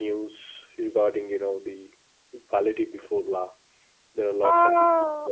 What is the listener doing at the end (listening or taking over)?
taking over